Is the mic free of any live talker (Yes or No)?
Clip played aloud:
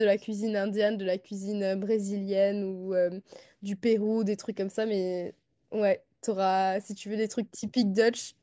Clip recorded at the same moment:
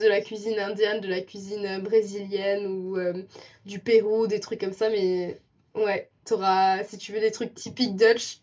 Yes